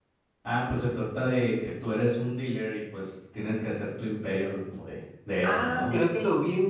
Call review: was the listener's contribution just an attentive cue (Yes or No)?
No